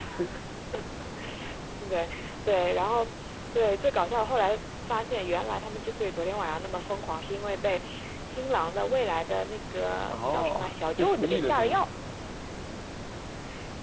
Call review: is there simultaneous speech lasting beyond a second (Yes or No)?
Yes